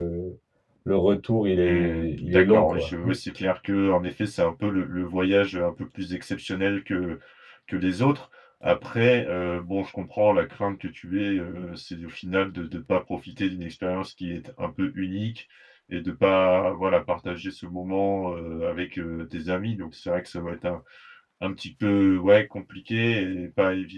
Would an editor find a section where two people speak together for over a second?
Yes, from 1.6 s

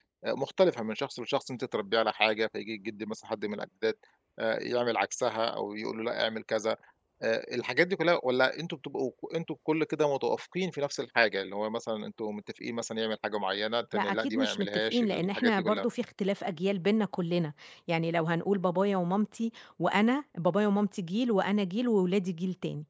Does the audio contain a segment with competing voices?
Yes, from 13.9 s

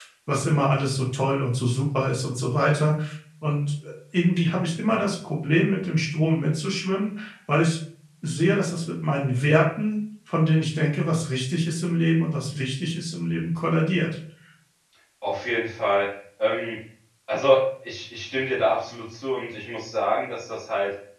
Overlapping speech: No

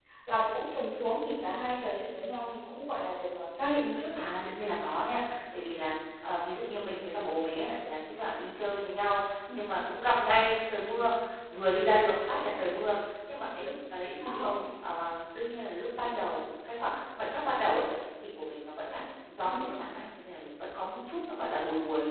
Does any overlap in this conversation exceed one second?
No

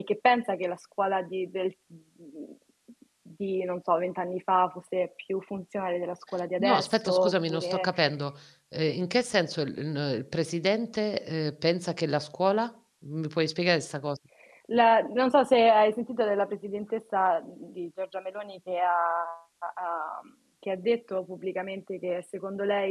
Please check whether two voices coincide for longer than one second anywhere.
Yes, from 6.6 s

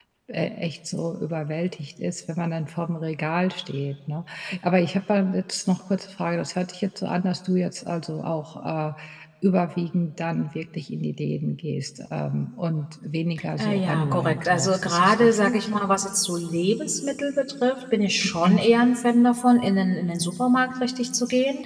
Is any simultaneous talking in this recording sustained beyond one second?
Yes, from 13.6 s

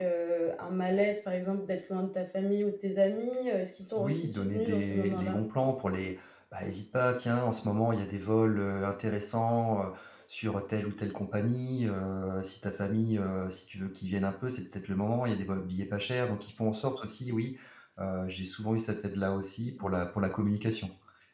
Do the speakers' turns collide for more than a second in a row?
Yes, from 4.0 s

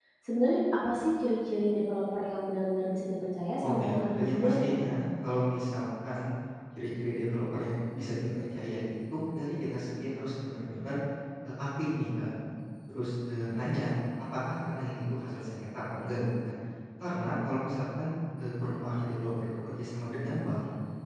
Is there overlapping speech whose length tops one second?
Yes, from 3.6 s

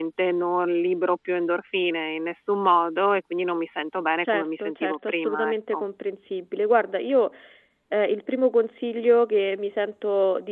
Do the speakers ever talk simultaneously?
Yes, from 4.2 s

